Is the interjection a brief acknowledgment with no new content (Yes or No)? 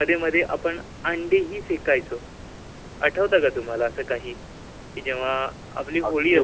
No